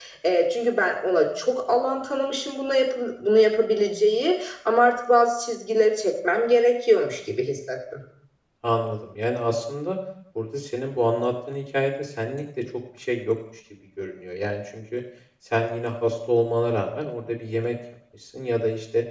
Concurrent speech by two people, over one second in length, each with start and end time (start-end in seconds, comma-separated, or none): none